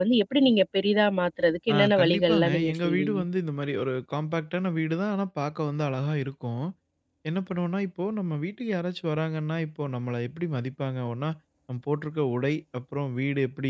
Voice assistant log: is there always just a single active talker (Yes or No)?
No